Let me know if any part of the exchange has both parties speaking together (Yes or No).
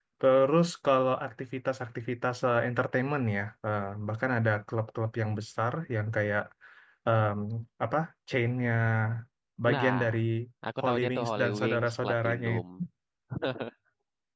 Yes